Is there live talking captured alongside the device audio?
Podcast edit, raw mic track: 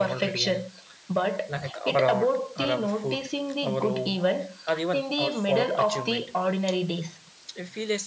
Yes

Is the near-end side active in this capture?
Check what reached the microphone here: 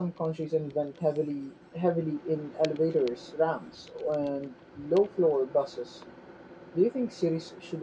Yes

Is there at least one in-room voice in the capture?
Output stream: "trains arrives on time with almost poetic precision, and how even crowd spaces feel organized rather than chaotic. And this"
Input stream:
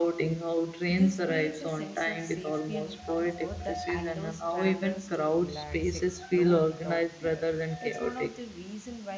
Yes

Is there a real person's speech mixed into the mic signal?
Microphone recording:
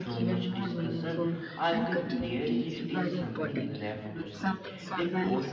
Yes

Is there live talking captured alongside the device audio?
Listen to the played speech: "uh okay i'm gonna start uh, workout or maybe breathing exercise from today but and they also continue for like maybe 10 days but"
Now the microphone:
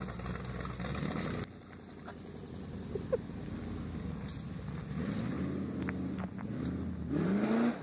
No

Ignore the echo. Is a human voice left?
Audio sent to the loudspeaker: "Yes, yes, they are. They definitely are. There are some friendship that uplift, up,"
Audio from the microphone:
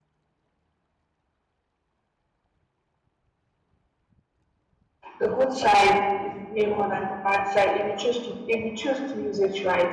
Yes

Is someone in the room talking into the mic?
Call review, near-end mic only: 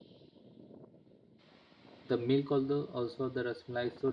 Yes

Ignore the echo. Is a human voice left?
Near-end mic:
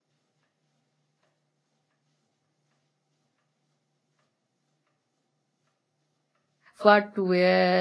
Yes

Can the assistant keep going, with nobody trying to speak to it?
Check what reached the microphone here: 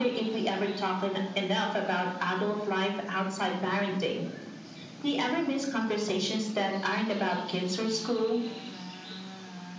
Yes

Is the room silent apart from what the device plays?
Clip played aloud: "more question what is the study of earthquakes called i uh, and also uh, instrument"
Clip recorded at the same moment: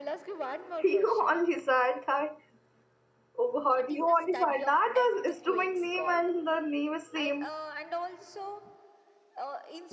No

